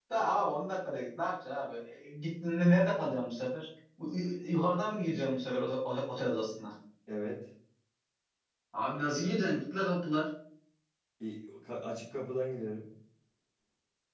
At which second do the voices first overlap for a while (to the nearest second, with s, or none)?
none